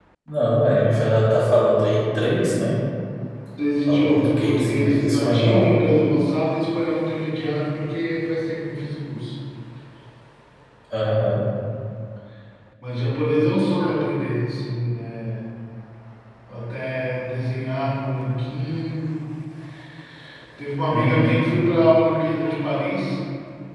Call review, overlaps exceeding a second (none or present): present